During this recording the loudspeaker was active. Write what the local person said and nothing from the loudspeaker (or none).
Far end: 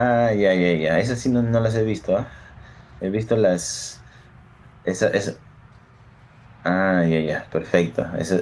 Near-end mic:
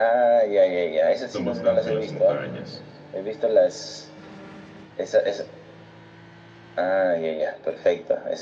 Son bastante en las montañas.